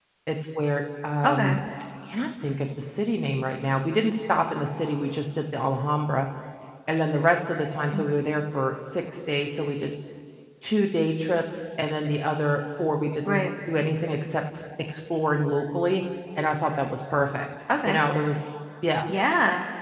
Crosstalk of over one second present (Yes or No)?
No